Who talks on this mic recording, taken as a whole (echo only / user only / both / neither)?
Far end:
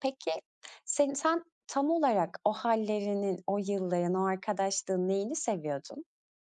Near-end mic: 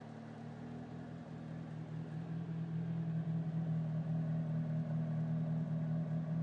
neither